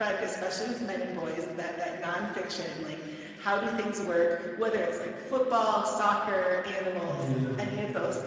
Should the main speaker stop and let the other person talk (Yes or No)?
No